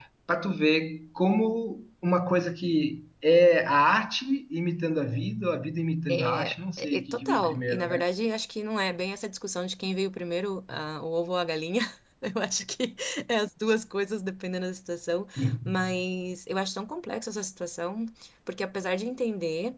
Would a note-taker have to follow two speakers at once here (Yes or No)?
Yes